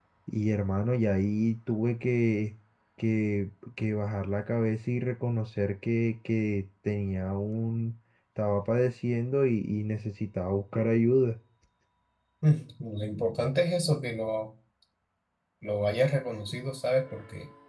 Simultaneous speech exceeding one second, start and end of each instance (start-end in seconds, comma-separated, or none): none